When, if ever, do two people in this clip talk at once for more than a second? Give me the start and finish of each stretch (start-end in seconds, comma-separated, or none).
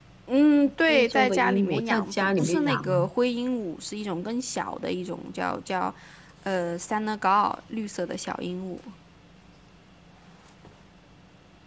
0.9-3.1